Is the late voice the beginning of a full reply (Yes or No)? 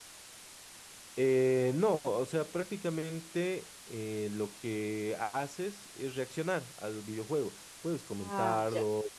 No